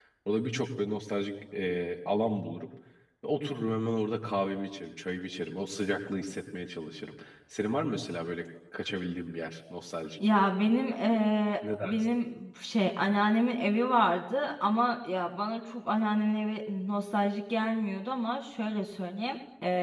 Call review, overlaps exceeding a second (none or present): none